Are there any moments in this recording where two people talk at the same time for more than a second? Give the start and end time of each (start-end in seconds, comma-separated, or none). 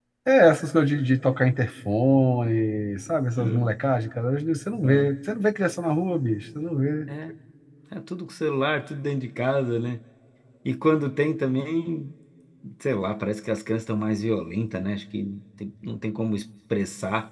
none